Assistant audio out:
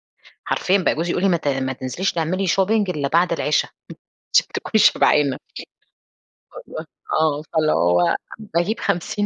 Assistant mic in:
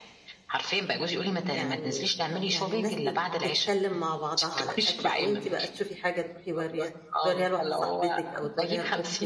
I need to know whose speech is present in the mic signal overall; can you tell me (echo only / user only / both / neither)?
both